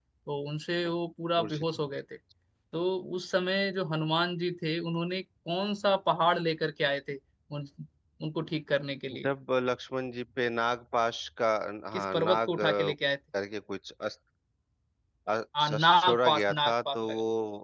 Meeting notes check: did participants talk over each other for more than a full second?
Yes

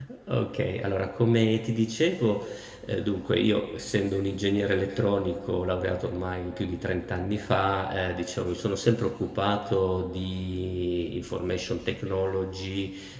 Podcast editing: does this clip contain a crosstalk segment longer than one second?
No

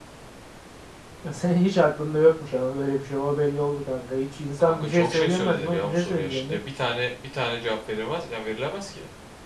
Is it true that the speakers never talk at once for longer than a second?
No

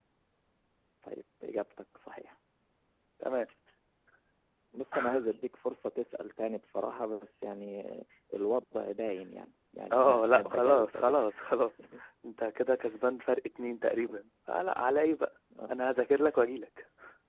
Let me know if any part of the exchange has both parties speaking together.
Yes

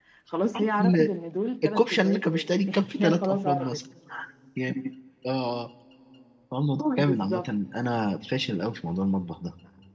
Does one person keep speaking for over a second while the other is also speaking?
Yes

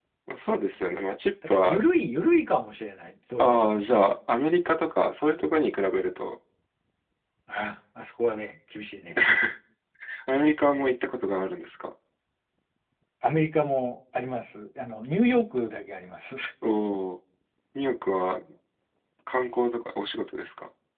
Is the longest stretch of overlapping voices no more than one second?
Yes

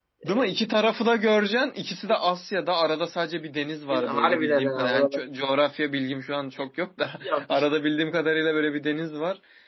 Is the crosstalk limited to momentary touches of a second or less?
No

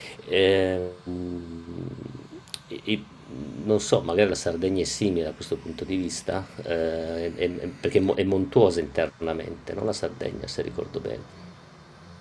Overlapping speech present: No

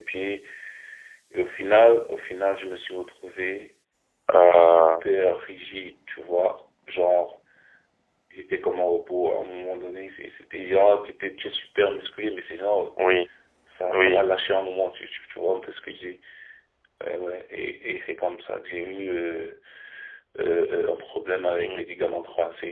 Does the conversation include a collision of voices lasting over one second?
No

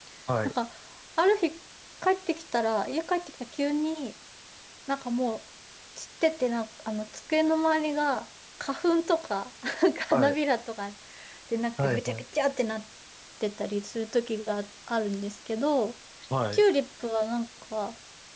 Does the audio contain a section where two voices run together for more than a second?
No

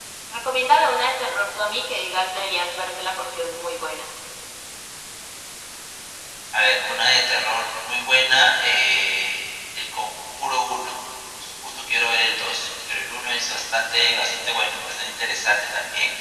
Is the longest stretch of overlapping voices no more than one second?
Yes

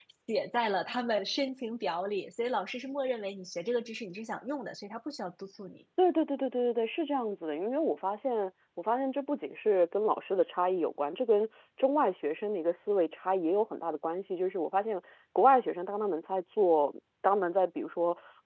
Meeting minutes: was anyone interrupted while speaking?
No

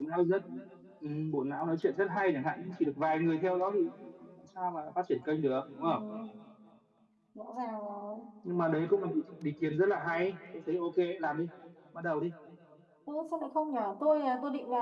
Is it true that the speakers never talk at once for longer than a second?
Yes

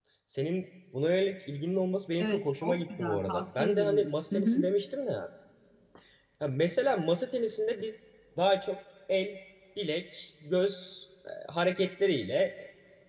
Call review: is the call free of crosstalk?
No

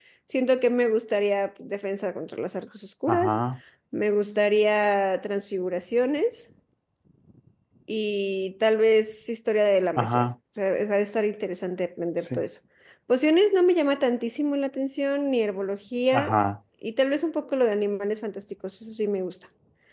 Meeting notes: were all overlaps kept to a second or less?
Yes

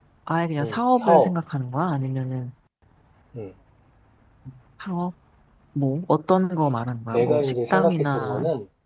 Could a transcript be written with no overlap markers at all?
No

